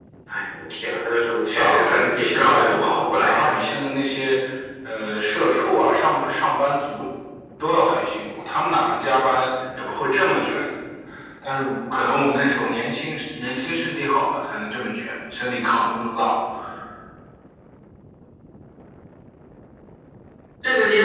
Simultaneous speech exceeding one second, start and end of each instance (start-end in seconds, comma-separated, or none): 1.5-3.6